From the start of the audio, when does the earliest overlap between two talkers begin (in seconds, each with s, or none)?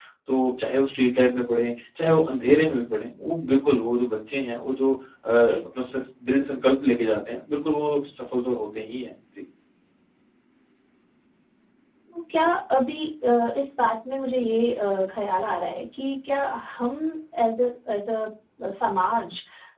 none